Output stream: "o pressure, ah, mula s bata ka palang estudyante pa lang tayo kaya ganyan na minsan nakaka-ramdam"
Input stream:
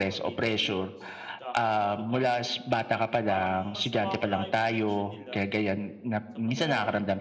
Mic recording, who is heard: both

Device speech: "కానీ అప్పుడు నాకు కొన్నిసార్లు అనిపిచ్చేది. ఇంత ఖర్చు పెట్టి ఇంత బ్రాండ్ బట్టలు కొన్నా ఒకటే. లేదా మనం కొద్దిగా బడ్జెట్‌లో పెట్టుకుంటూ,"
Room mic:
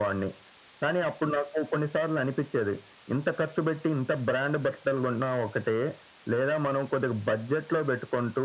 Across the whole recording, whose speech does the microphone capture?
echo only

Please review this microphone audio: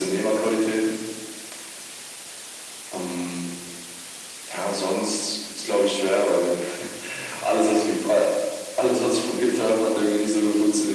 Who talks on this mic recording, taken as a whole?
echo only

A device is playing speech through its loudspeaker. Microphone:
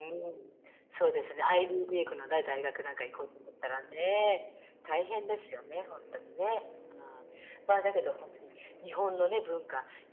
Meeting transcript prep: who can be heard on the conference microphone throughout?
echo only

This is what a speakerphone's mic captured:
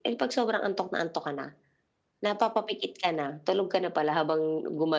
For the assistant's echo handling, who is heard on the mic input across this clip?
echo only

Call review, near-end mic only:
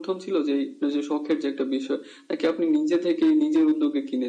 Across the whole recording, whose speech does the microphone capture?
echo only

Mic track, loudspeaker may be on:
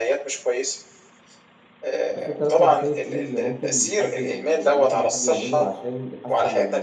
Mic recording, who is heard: both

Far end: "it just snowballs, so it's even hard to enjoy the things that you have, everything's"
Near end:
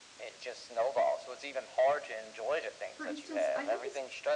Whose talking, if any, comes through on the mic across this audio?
both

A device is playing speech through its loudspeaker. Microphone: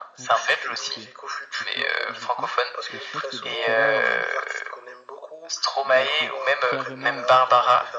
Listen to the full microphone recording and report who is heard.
both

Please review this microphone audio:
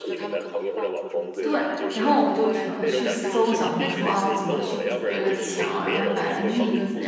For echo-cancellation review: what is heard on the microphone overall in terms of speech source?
both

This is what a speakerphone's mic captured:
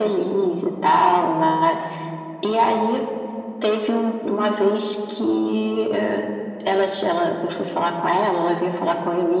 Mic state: echo only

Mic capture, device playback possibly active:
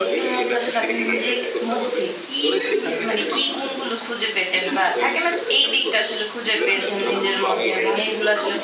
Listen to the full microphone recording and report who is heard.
both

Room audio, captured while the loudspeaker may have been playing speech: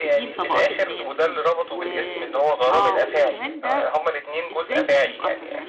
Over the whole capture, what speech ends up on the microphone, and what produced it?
both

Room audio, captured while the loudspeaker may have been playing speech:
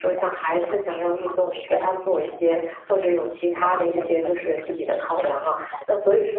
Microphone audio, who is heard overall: both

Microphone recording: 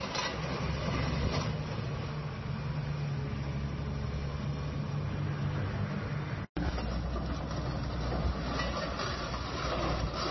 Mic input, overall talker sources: neither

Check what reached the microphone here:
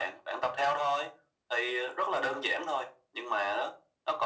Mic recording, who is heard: echo only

